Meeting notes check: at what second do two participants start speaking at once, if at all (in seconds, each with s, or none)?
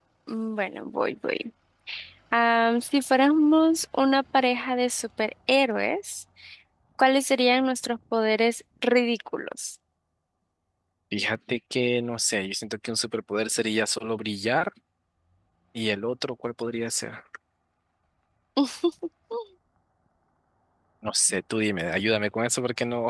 none